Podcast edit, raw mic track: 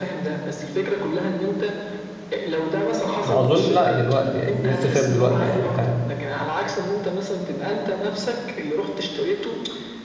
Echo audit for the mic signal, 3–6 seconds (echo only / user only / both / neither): both